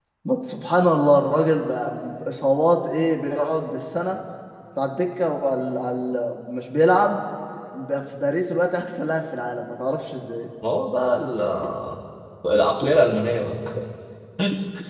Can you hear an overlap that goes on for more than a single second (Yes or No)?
No